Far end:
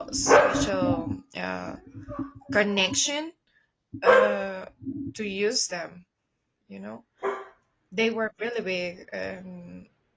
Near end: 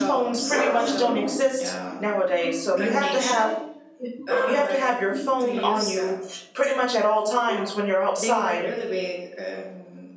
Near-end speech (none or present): present